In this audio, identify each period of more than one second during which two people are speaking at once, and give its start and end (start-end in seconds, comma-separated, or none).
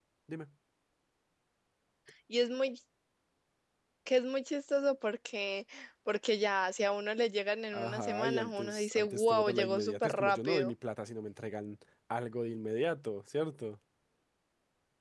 7.7-10.7